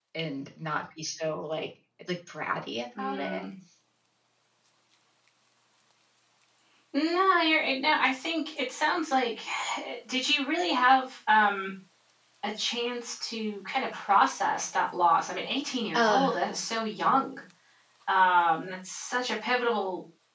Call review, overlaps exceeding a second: none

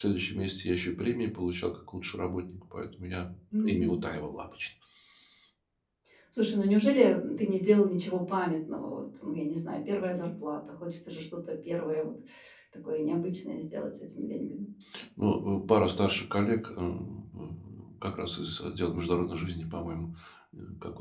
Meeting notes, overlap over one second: none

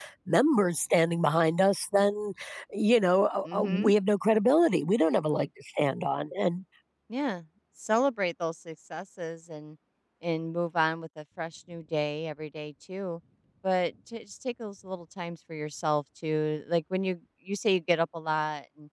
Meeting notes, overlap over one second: none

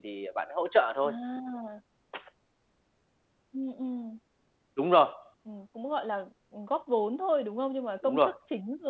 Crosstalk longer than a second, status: none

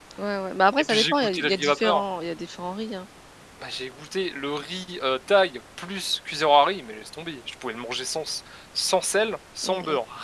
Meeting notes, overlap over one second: present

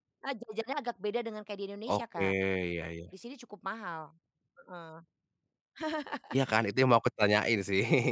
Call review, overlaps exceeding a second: none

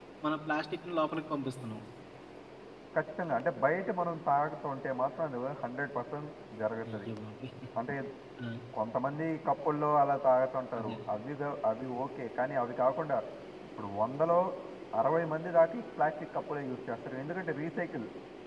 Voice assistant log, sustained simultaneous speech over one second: none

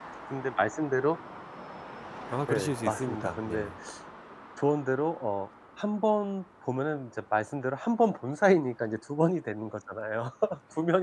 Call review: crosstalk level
present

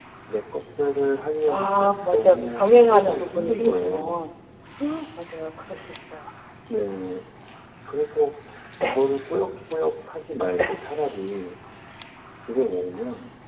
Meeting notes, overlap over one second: present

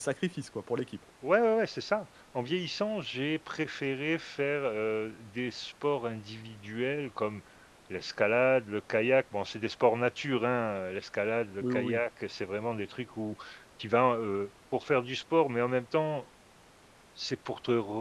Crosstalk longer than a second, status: none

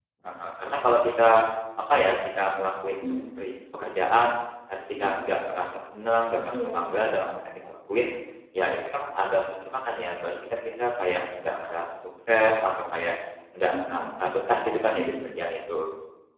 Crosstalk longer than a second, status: none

